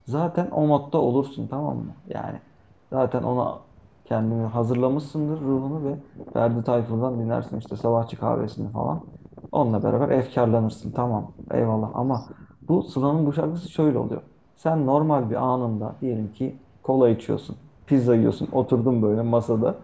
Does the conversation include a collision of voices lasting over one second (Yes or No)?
No